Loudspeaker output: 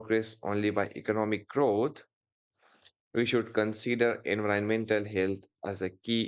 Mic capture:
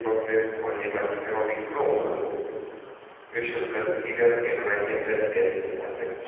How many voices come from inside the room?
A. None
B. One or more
B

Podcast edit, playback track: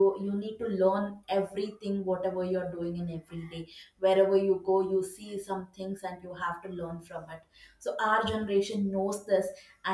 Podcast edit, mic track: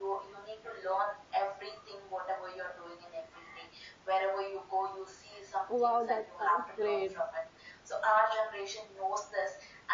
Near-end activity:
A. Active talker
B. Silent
A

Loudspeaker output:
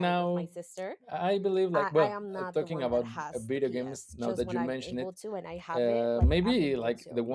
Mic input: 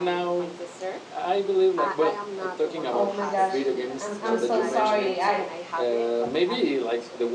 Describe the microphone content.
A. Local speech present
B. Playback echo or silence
A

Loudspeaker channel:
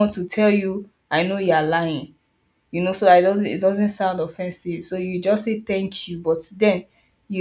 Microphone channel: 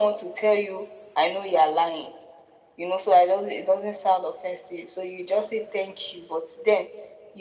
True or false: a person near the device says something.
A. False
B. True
A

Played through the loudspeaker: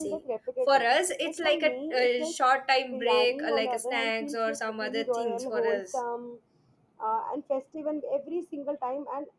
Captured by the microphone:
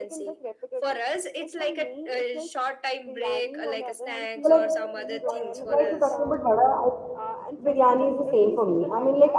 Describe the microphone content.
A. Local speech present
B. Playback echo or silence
A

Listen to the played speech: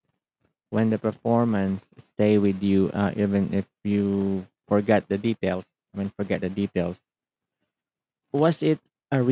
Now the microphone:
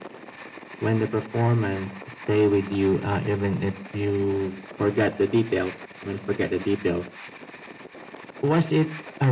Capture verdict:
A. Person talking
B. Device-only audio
B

